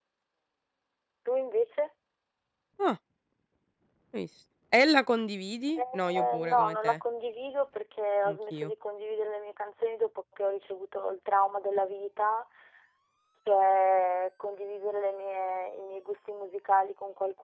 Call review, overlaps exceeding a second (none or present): present